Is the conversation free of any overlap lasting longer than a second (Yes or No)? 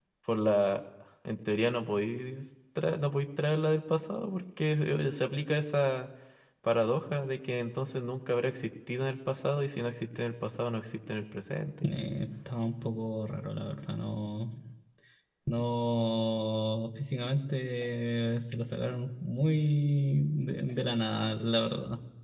Yes